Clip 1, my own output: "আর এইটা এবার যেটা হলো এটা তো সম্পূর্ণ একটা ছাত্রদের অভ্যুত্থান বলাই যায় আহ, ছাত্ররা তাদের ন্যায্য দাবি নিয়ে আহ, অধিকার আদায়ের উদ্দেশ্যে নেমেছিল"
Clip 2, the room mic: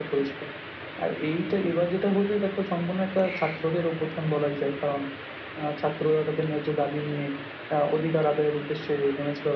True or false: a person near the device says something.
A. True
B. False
B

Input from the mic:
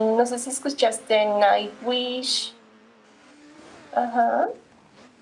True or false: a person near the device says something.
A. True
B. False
B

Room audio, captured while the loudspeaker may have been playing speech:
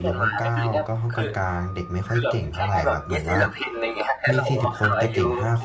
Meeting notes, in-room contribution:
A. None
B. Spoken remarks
B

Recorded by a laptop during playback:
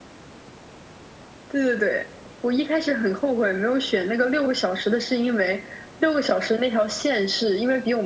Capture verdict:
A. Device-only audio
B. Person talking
A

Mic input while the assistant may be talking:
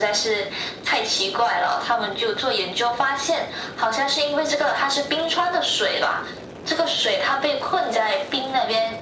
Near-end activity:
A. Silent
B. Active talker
A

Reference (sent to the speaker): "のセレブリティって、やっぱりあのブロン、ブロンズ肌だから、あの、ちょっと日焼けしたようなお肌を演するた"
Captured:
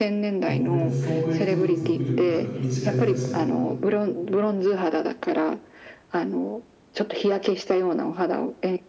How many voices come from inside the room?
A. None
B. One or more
B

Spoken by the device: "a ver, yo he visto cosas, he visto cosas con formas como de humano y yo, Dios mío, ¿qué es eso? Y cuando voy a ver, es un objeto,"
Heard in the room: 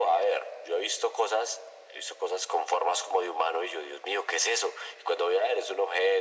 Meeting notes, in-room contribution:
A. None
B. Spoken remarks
A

